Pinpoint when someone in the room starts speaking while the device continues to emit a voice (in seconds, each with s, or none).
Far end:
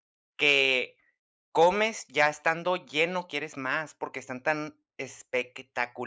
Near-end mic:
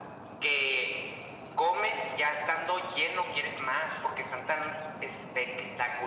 none